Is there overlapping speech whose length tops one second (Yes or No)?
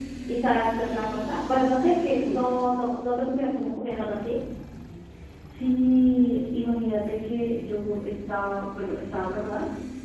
No